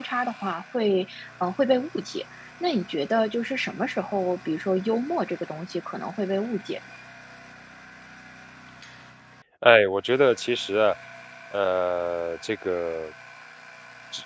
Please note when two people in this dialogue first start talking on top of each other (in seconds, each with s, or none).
none